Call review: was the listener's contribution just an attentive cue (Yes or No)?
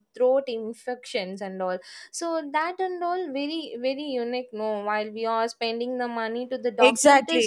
No